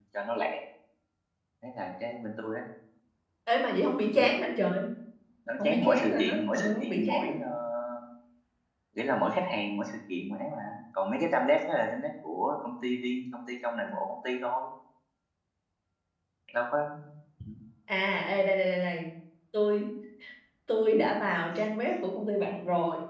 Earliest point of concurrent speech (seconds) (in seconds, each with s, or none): 5.6 s